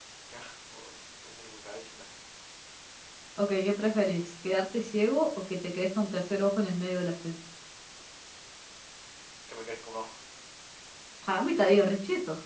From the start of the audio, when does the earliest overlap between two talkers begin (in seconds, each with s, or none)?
none